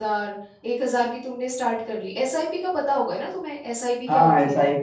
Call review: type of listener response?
taking over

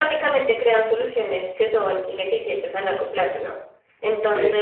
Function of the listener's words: listening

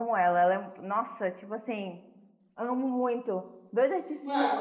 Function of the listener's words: listening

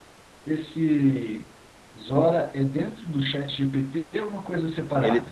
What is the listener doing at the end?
taking over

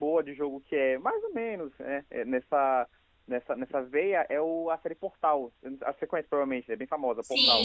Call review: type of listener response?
taking over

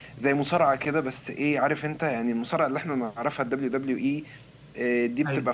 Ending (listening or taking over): listening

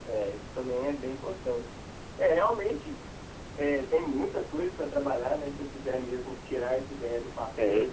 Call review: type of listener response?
listening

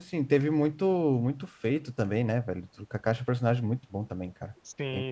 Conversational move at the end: taking over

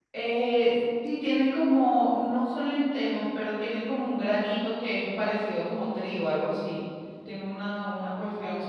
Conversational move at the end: listening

